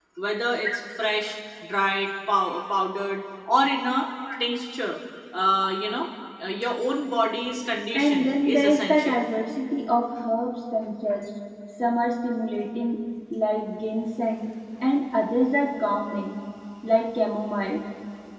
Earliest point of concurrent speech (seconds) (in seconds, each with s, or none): 7.9 s